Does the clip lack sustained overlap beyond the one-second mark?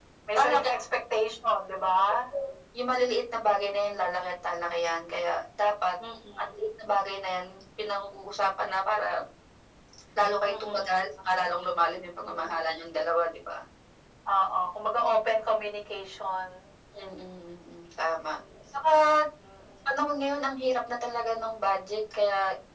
Yes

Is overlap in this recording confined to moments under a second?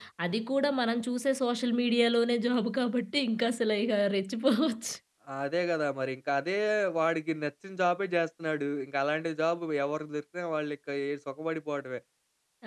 Yes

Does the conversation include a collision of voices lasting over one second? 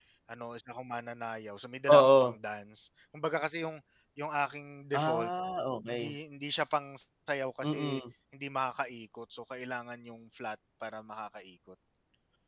No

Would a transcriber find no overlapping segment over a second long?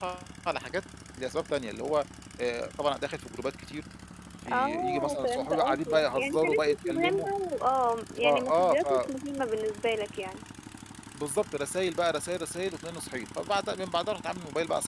No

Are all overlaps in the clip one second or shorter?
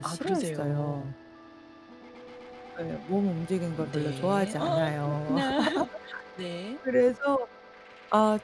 No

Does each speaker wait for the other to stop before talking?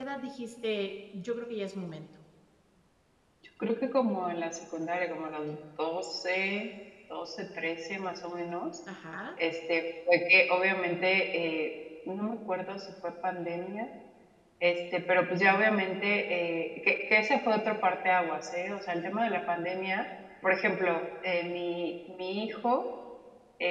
Yes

